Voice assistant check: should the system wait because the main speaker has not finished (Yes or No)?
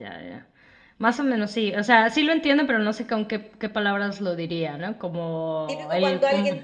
No